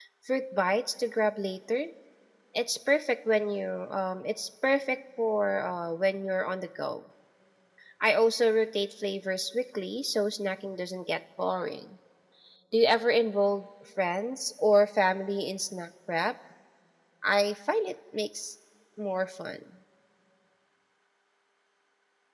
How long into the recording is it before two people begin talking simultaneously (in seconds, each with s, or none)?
none